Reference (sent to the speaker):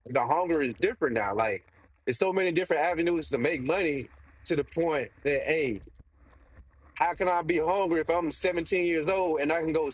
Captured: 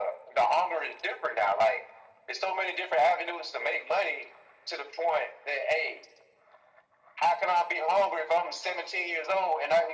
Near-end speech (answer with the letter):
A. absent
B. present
A